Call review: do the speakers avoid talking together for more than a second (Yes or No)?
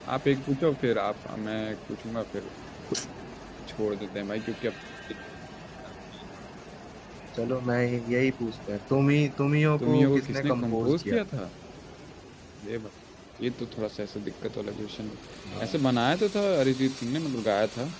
No